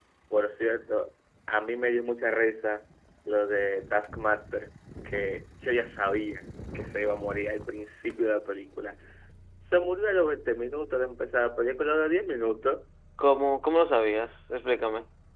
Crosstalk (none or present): none